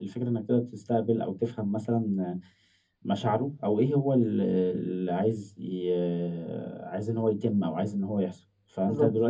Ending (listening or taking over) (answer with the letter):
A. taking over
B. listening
B